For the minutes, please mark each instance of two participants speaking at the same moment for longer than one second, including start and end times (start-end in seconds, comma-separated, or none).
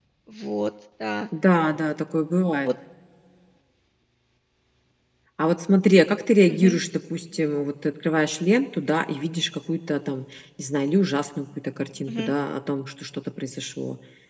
none